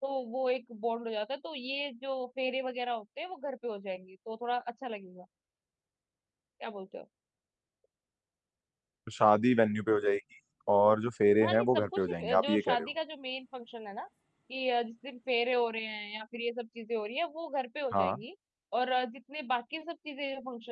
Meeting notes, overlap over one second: present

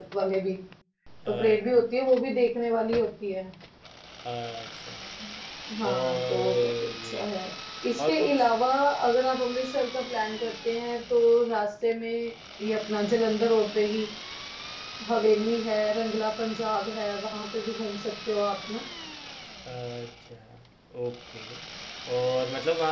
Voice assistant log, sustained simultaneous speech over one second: present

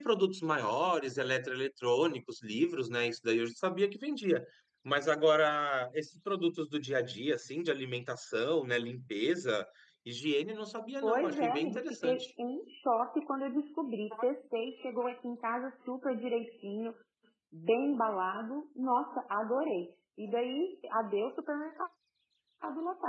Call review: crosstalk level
present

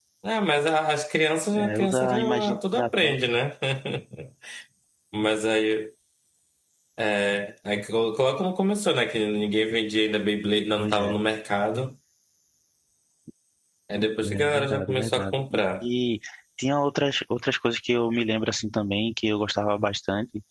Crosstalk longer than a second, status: present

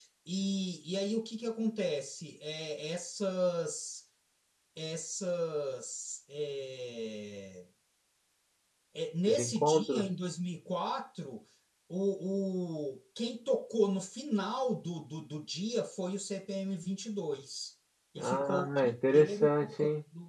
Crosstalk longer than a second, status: present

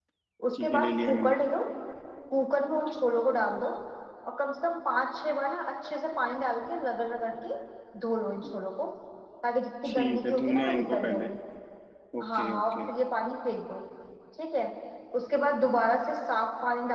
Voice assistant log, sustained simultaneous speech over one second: present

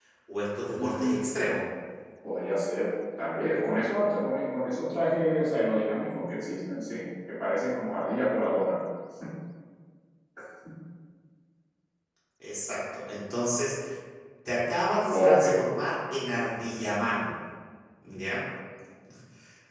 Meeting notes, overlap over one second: none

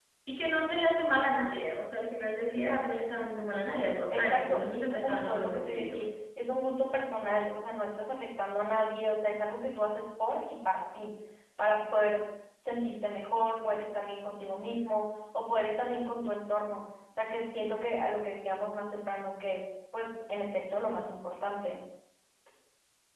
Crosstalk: present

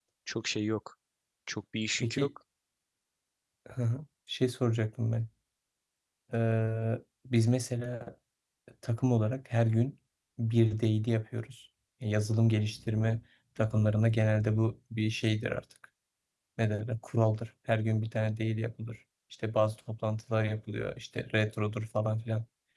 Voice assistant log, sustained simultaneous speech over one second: none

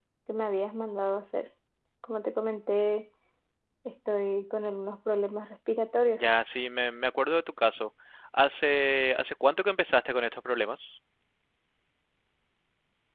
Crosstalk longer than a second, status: none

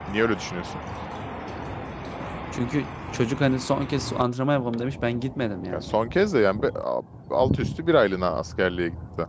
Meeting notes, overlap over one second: none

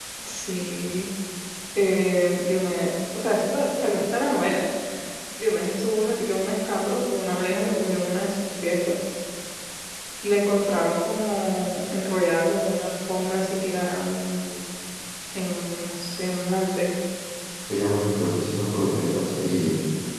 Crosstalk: none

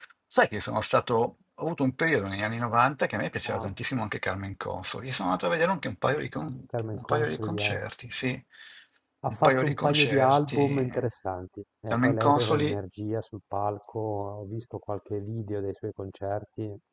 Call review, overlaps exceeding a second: present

